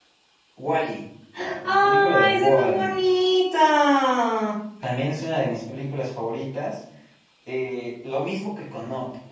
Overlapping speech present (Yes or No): Yes